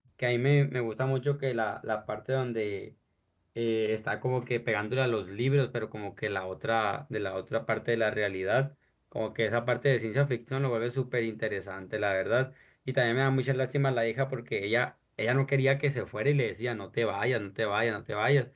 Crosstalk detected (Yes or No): No